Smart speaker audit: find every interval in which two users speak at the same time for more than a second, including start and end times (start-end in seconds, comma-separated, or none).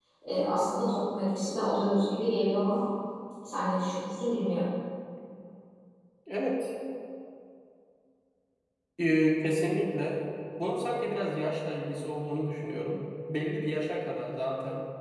none